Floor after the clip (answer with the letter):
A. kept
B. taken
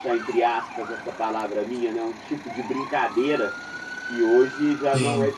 A